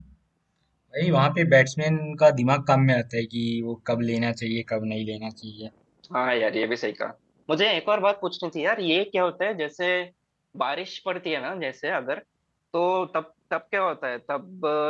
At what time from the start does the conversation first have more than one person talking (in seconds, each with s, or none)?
none